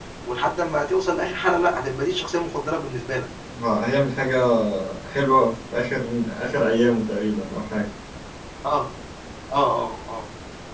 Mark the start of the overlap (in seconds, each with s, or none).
none